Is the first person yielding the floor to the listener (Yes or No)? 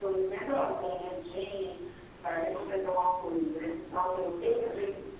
No